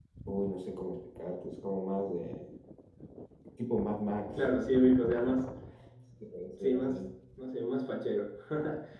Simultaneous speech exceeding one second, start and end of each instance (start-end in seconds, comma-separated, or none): none